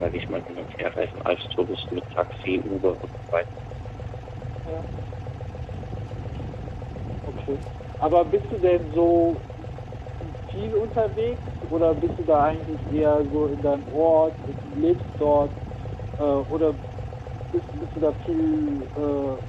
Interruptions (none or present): none